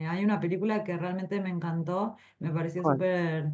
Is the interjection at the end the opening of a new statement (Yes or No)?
No